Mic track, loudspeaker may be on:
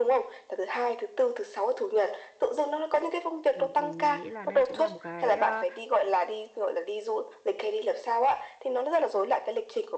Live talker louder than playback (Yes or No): No